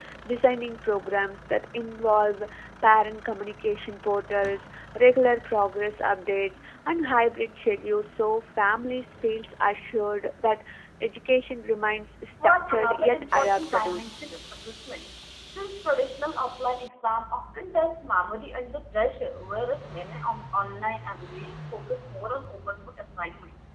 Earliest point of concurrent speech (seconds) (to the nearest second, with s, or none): 12 s